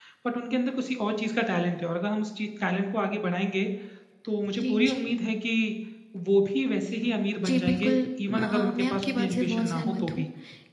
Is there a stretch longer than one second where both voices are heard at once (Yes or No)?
Yes